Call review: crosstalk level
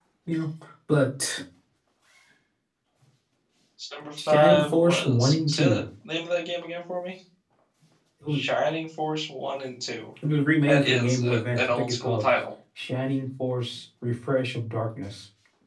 present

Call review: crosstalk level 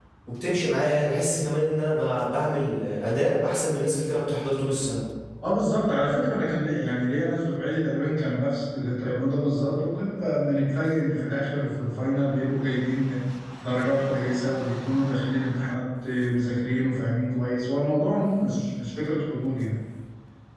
none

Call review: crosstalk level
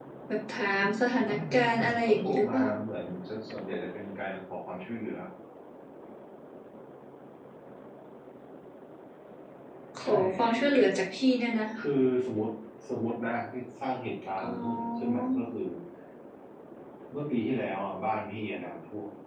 present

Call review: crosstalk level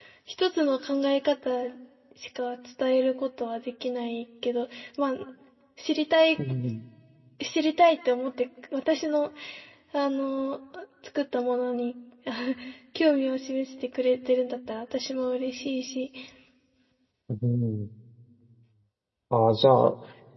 none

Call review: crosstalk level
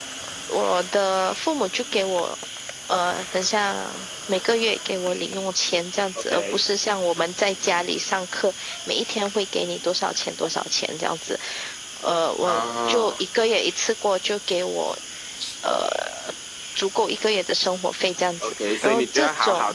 present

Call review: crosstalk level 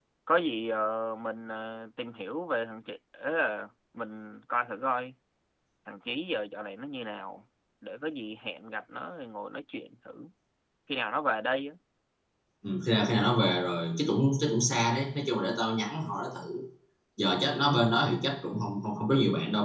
none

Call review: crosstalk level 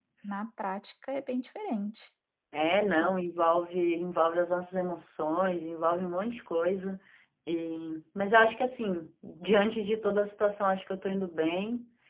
none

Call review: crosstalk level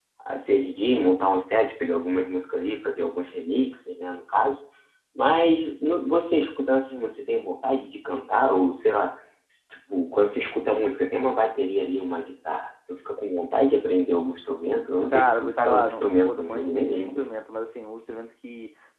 present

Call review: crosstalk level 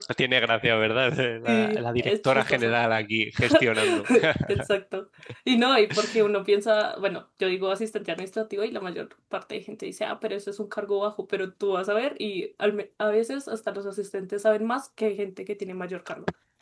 present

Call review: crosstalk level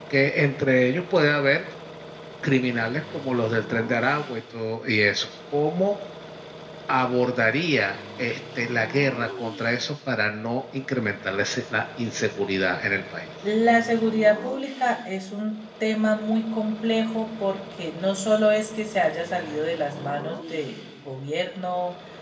none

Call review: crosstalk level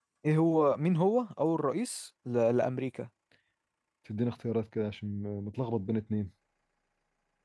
none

